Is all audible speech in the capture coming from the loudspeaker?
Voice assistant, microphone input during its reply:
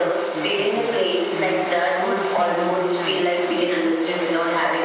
No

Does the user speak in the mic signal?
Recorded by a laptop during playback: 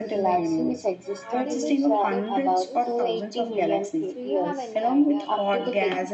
Yes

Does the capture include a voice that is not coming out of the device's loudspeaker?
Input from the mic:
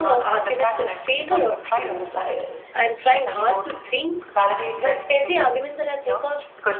Yes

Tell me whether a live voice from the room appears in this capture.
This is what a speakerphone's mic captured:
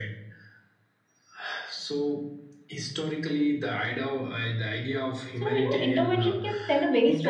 Yes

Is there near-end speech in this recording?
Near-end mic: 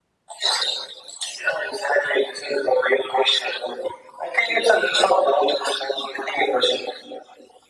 No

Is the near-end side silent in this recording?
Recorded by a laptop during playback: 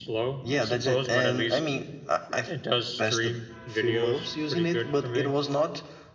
Yes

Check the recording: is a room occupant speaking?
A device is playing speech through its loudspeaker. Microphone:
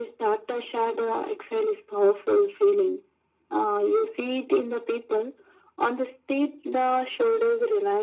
No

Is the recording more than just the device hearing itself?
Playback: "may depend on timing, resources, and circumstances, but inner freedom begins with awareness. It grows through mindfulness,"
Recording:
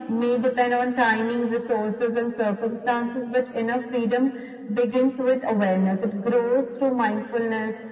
No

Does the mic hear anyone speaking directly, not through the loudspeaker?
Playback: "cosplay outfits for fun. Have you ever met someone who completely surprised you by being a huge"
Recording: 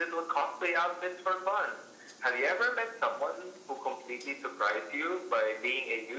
No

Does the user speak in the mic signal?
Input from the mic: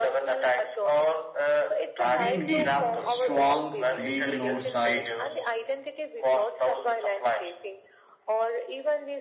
Yes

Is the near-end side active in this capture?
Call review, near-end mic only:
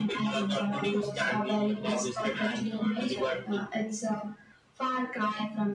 No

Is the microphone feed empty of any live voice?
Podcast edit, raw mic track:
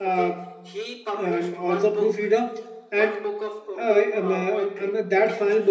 No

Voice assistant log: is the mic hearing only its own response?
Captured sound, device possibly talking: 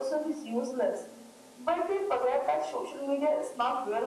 Yes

